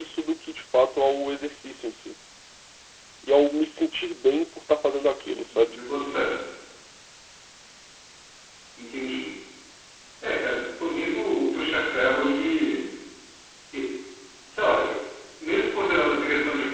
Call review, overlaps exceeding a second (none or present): none